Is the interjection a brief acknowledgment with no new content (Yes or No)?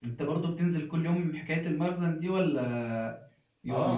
No